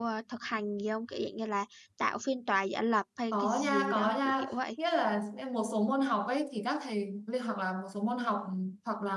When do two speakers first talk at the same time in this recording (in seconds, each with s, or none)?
3.3 s